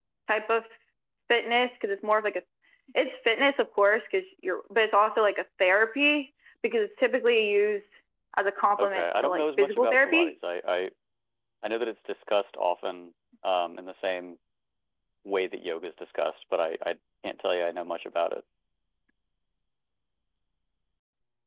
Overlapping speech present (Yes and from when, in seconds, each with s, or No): Yes, from 8.8 s